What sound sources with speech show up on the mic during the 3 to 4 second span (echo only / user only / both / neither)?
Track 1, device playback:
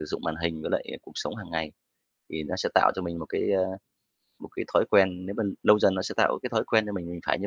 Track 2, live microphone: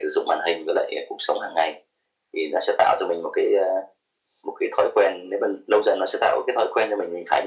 echo only